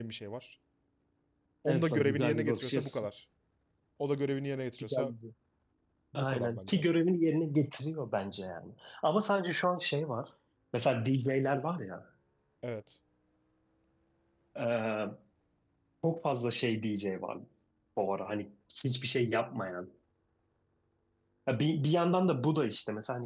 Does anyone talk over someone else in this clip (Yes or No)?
Yes